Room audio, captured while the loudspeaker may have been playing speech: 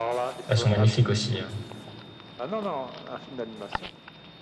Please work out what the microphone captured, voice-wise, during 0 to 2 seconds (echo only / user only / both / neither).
both